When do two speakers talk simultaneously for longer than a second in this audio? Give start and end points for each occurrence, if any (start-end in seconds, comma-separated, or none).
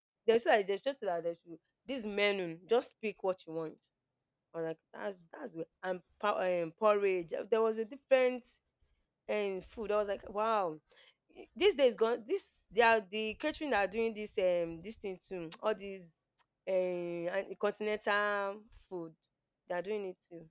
none